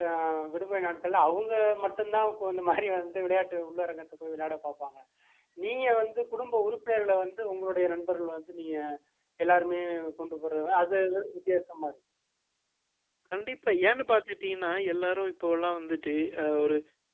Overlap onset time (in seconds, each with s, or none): none